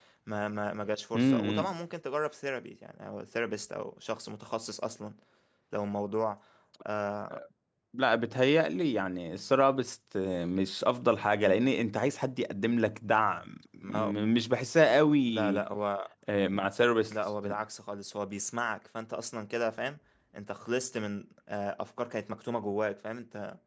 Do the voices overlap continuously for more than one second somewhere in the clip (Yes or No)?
No